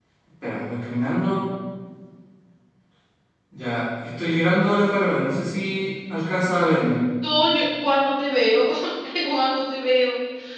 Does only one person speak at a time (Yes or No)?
Yes